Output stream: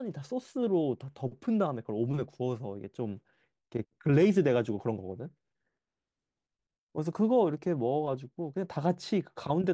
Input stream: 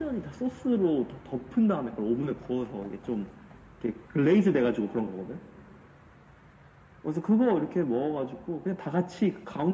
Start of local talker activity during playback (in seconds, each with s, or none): none